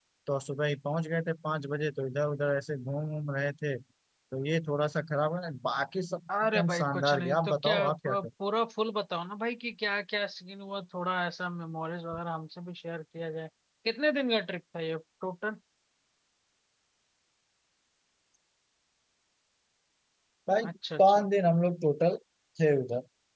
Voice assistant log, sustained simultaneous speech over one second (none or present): present